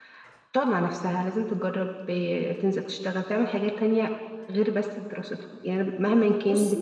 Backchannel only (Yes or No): Yes